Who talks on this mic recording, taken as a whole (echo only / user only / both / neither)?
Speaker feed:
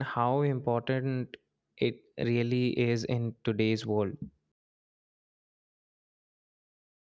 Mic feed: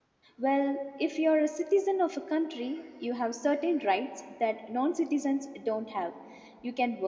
user only